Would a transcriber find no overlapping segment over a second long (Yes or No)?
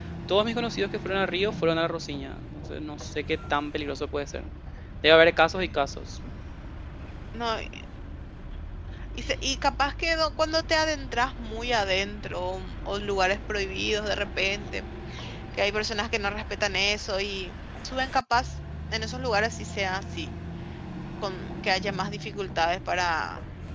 Yes